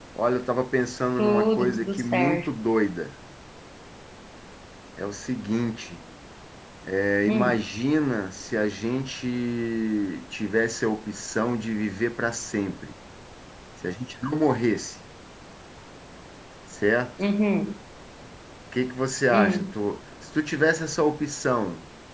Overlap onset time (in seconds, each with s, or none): 1.2 s